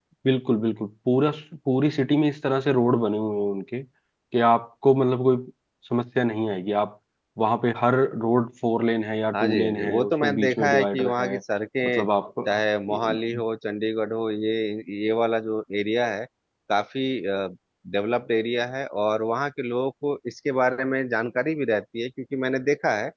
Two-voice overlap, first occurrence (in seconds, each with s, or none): 9.3 s